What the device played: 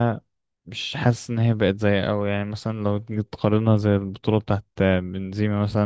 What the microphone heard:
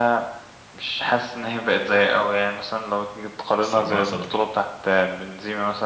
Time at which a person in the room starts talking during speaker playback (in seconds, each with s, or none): 3.6 s